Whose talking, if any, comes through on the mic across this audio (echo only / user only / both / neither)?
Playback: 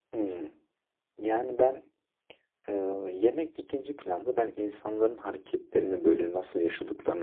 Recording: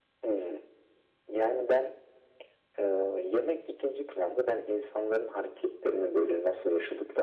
echo only